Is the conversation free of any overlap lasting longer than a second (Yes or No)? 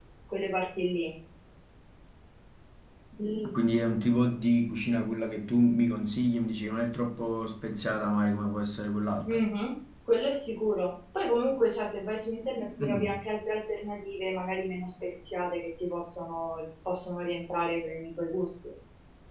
Yes